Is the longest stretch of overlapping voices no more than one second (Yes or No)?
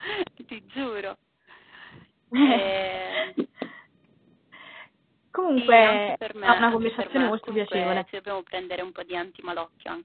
No